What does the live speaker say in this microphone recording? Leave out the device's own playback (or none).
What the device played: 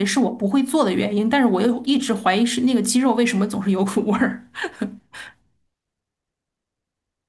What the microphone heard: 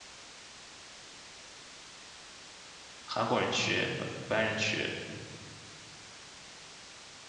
韩国人区、呃白人区，